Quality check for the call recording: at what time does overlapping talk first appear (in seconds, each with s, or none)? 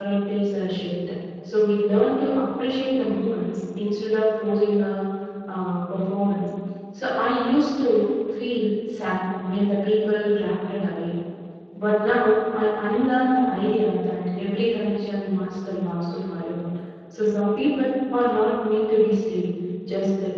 none